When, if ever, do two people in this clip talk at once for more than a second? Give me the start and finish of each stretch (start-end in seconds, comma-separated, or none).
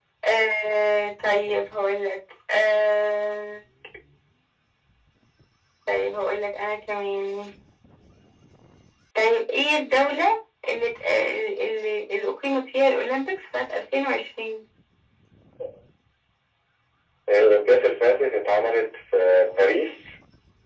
none